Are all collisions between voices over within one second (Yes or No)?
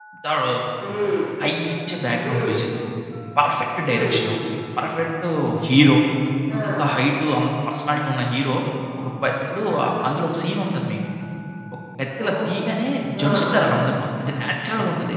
Yes